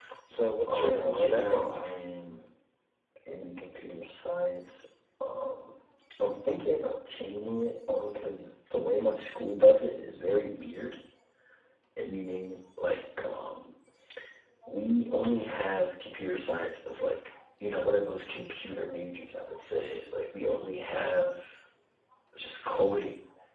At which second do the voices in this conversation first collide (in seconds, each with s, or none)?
0.7 s